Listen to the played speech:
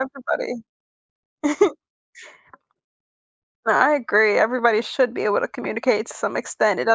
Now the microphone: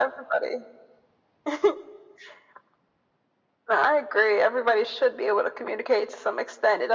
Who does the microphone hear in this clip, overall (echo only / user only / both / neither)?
echo only